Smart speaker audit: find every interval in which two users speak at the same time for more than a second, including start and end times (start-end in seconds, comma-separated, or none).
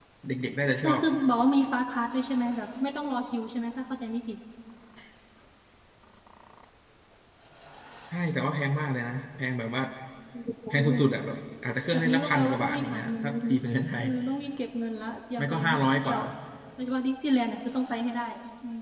11.9-13.5